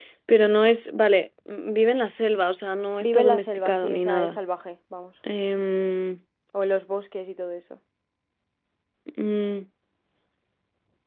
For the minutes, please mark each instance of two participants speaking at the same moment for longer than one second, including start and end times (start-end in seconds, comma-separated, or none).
3.0-4.4